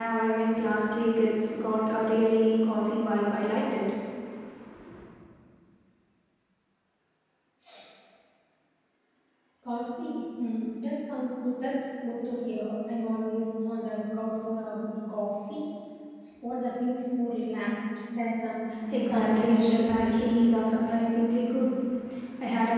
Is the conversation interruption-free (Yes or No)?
No